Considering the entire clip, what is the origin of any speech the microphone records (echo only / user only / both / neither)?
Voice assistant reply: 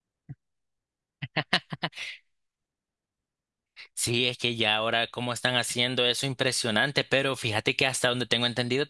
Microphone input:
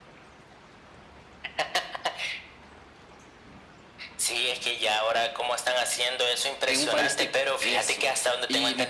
both